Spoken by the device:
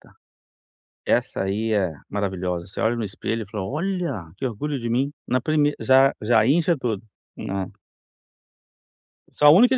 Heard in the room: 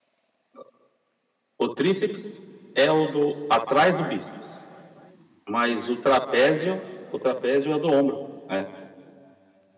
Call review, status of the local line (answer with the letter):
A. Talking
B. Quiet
A